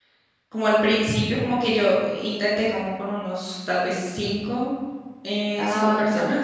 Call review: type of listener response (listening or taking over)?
listening